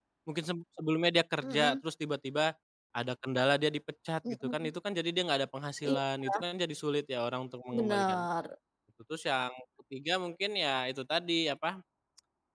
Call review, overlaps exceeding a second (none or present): none